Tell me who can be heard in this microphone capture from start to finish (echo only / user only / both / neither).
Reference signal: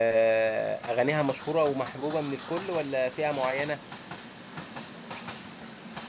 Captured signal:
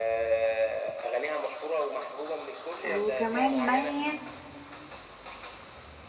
both